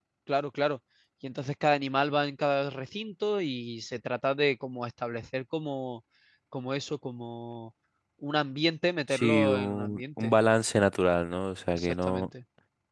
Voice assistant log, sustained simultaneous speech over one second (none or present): present